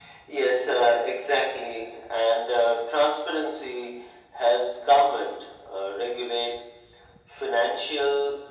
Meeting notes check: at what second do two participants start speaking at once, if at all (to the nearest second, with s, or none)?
none